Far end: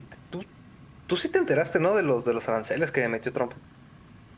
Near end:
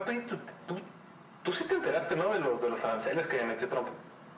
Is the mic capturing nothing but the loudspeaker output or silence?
Yes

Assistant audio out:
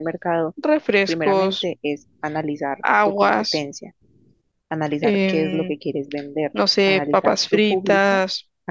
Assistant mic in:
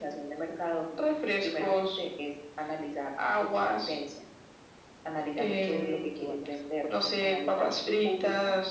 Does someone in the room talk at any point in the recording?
Yes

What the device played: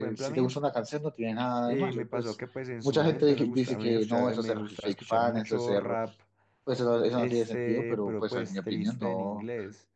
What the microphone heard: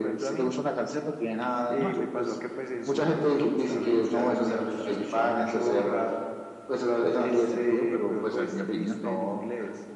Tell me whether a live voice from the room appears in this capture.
No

